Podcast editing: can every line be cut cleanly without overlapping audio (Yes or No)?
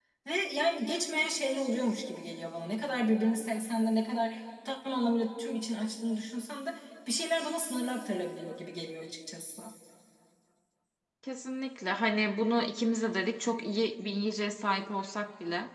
Yes